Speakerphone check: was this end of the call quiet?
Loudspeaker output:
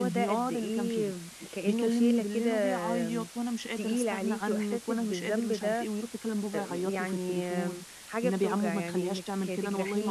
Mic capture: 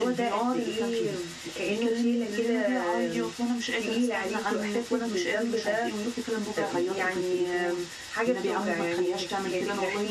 Yes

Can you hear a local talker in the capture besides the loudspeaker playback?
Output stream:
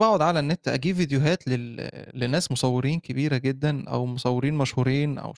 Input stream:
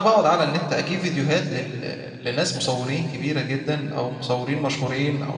No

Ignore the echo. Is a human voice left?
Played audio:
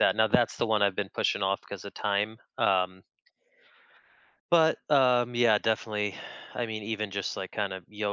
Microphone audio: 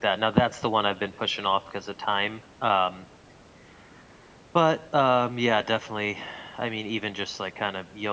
No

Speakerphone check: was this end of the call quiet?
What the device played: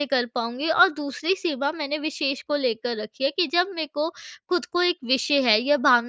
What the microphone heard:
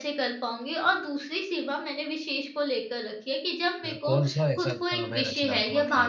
No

